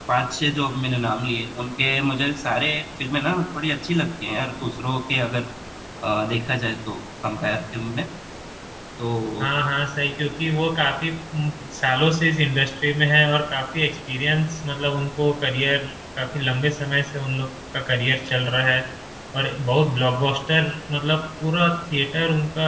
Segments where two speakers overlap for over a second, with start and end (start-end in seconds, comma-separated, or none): none